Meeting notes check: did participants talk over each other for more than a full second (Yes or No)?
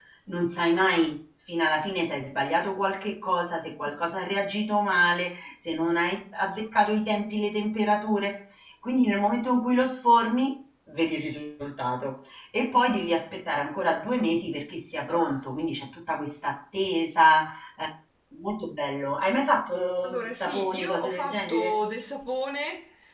Yes